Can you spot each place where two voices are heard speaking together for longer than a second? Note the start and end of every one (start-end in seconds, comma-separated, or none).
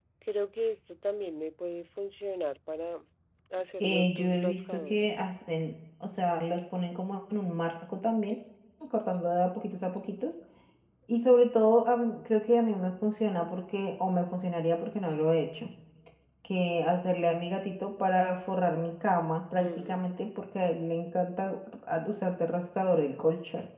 3.8-5.1